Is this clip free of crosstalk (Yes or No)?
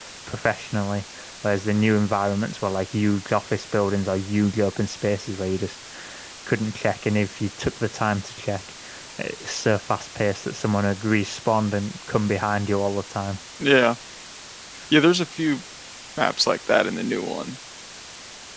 Yes